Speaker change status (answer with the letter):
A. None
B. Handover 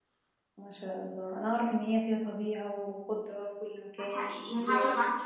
B